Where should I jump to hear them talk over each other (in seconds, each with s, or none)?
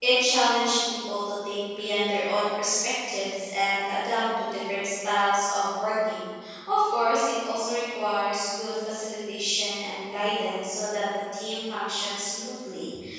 none